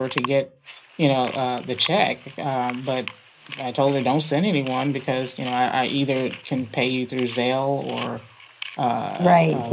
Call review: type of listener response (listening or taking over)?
taking over